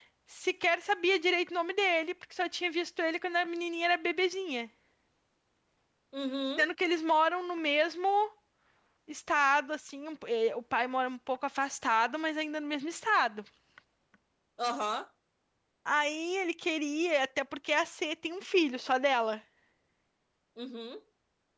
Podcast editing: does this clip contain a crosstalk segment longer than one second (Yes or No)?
No